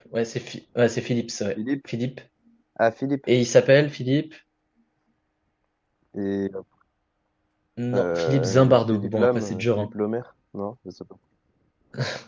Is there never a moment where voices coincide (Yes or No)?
No